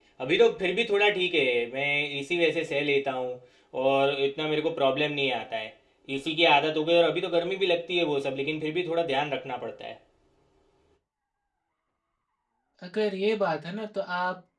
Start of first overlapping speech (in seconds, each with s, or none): none